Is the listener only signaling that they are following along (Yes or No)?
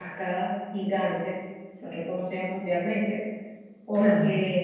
Yes